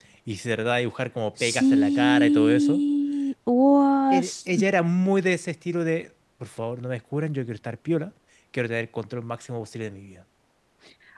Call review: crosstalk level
present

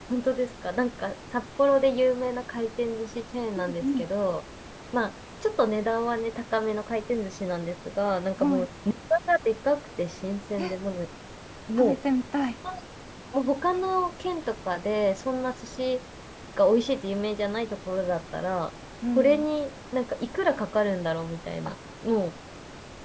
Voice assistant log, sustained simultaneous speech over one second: none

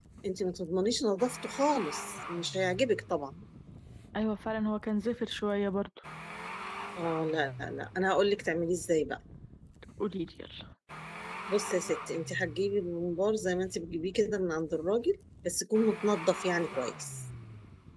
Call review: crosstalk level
none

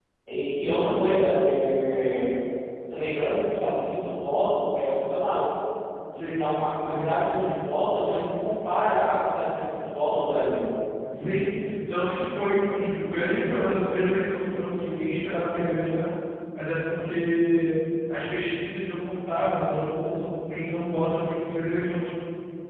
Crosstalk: present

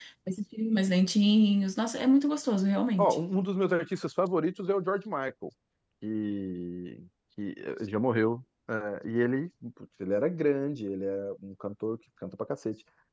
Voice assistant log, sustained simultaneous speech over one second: none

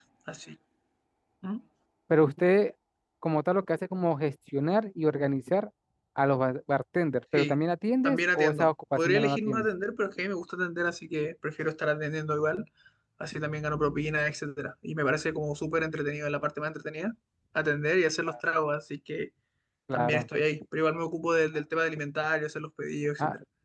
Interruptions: present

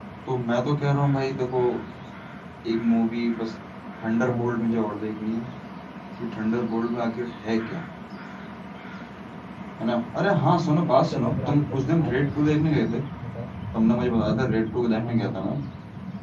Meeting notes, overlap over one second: present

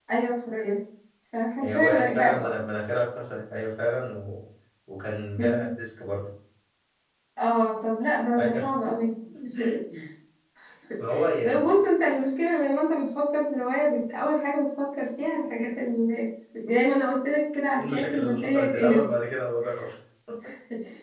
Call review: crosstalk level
present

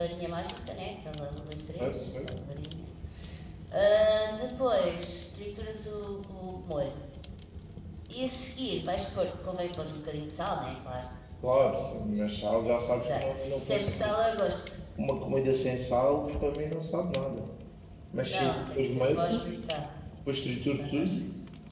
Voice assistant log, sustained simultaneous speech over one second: present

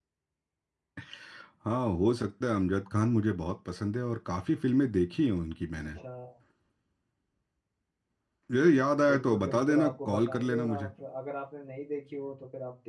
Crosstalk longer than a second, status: present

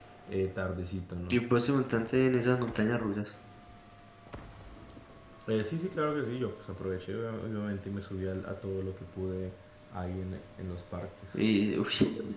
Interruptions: none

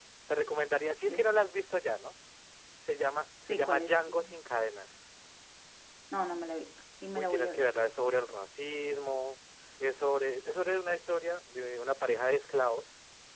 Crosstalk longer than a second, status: none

